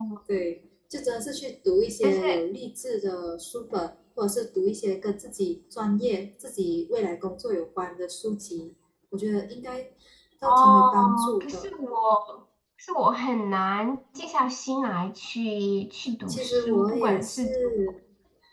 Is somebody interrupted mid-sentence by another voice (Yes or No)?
Yes